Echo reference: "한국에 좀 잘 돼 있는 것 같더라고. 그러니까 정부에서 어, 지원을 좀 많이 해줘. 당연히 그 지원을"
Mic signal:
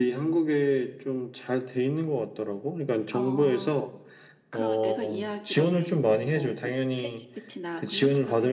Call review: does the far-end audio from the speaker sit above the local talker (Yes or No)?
Yes